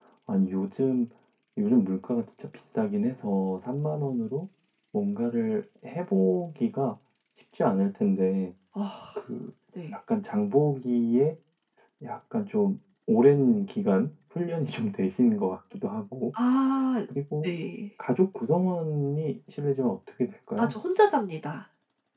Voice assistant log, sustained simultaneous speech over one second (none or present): none